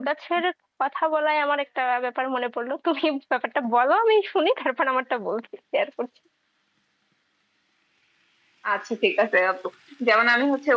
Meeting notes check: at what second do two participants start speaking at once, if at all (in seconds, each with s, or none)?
none